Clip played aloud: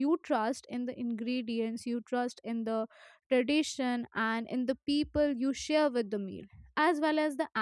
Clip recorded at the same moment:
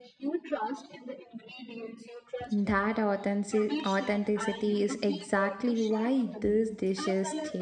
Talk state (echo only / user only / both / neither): both